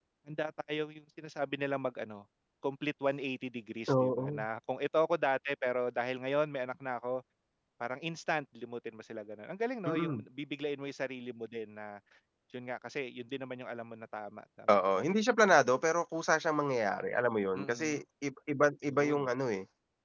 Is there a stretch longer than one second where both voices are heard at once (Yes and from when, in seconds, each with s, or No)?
No